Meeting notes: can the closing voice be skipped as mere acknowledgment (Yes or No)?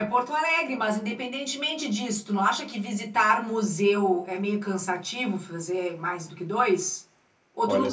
No